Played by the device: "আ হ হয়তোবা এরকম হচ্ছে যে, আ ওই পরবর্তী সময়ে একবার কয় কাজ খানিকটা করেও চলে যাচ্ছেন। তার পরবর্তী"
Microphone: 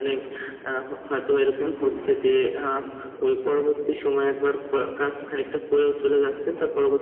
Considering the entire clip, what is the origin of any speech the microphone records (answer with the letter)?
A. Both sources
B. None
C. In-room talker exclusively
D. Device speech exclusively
A